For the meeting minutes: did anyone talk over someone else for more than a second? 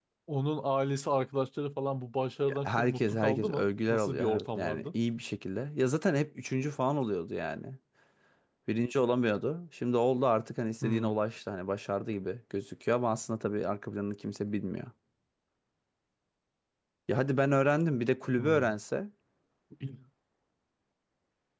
Yes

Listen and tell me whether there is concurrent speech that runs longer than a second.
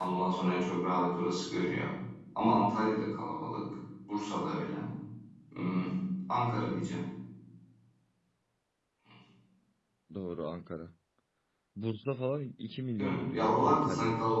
Yes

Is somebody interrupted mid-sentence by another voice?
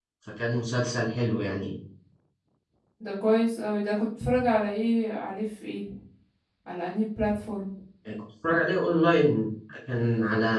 No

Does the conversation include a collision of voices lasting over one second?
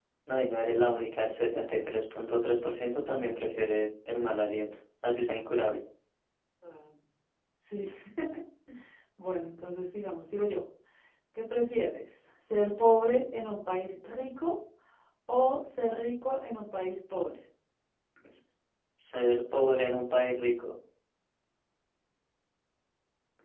No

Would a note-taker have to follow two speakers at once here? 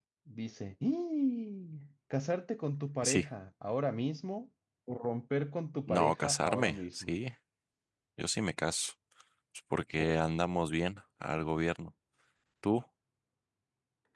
Yes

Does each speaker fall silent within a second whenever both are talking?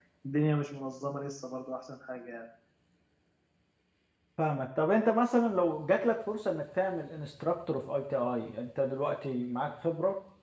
Yes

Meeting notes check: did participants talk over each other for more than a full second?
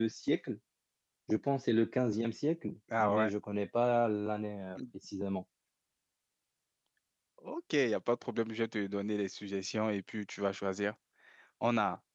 No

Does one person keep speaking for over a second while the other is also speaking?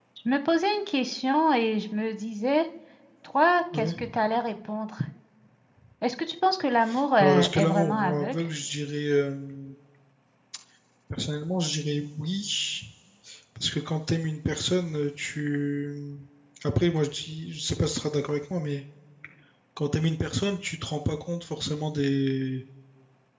Yes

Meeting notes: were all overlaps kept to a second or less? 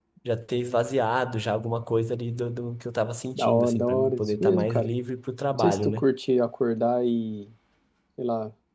No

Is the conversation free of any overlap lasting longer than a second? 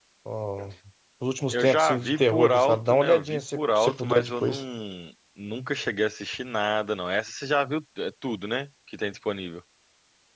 No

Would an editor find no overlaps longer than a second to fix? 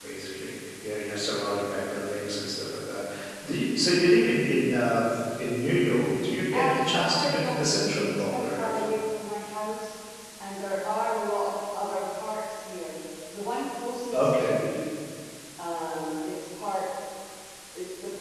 No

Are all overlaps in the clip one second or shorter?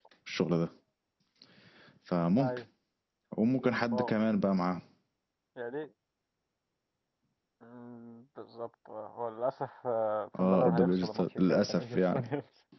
No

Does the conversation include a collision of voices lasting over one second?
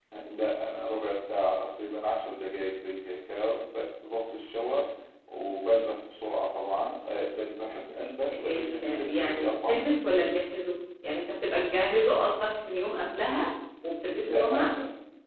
Yes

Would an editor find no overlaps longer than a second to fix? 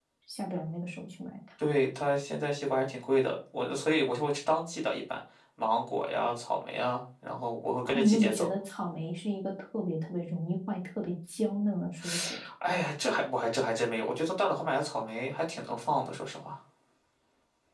Yes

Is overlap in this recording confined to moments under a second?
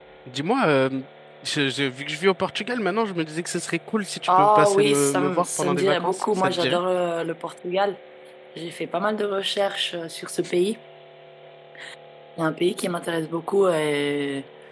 No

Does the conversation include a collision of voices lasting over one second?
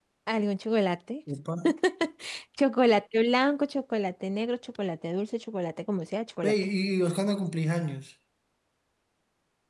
No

